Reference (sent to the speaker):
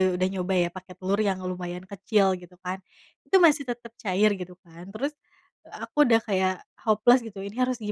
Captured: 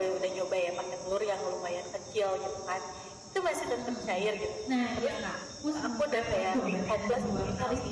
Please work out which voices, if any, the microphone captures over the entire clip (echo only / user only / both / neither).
both